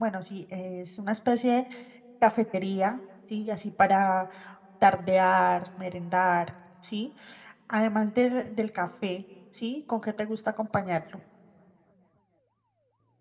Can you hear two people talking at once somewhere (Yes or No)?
No